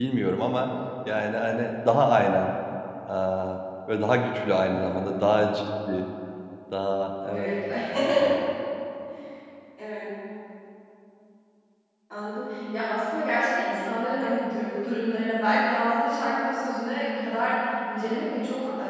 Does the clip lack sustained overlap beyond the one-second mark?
Yes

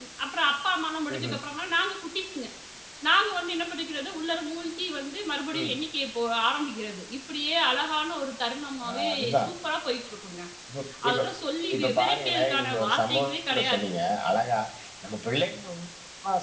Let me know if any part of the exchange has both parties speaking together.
Yes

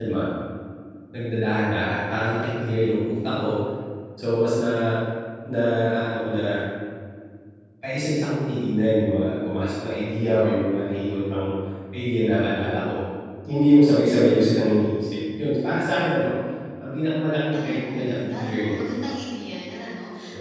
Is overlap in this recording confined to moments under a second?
No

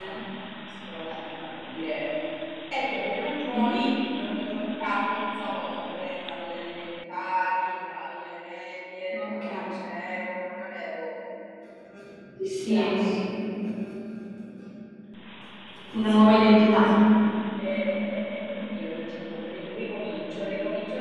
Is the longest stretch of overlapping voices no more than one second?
Yes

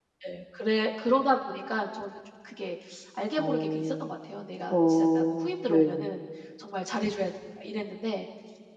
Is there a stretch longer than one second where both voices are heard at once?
Yes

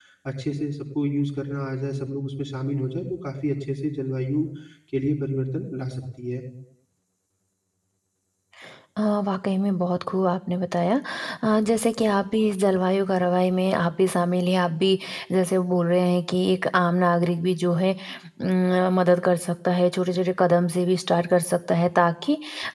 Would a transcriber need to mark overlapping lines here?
No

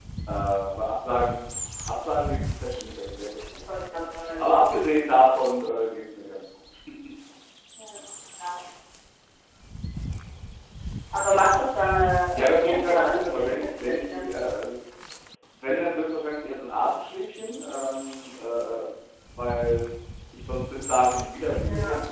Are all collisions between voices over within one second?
No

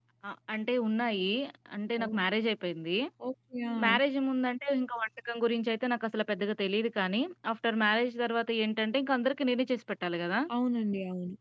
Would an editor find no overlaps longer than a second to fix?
Yes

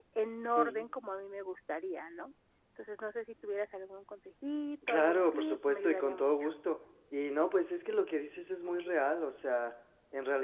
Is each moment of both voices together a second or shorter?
No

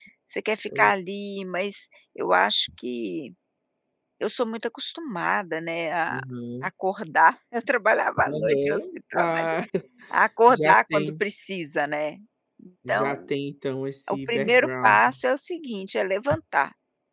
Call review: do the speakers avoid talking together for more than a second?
No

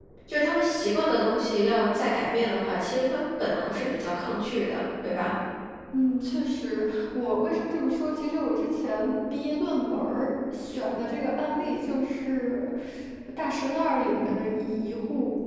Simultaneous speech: No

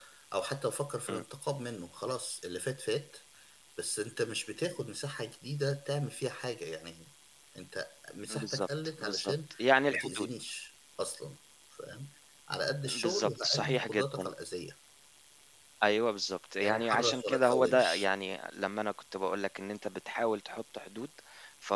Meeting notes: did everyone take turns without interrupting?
No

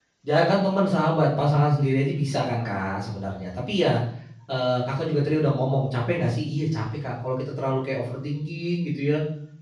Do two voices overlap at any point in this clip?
No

